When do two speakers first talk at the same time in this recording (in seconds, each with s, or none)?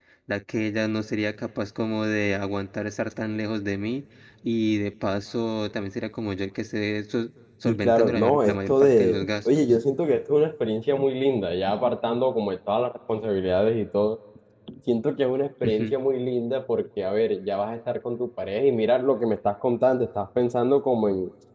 7.7 s